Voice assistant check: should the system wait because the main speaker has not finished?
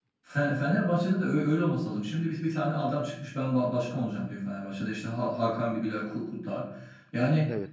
Yes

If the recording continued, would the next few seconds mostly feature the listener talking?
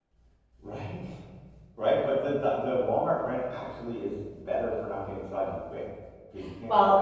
Yes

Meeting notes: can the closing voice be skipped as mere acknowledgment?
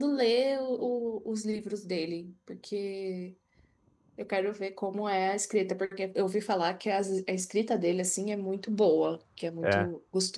Yes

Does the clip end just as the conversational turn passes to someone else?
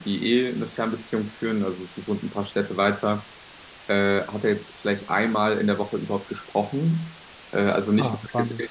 No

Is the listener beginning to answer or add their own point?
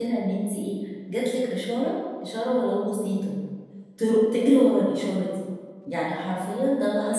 No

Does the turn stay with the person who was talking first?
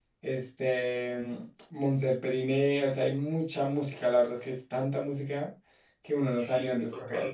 No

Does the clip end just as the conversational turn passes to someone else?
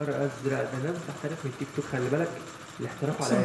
No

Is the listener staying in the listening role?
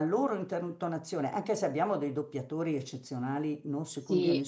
Yes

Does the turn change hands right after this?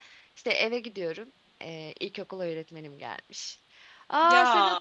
No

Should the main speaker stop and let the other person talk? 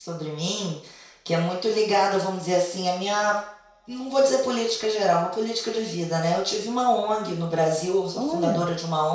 No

